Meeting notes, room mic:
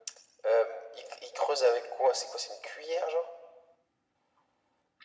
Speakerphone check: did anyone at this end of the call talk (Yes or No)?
No